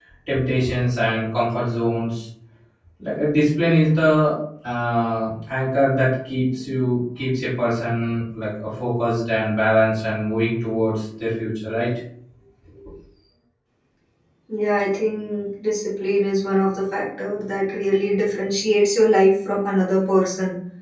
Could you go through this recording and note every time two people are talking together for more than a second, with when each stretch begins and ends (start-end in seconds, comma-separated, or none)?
none